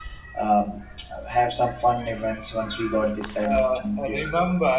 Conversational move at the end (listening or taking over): taking over